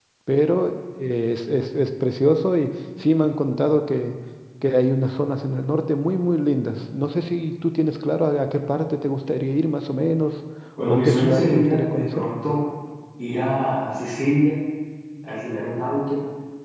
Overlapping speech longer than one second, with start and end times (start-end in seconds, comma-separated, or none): 10.9-12.3